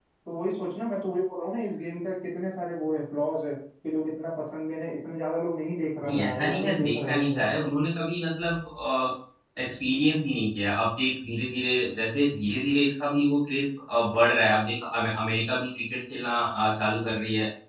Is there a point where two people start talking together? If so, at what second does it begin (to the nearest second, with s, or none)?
6 s